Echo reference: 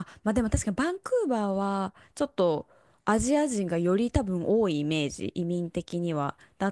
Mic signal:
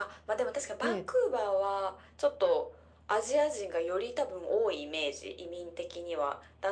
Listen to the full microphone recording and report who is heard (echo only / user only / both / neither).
both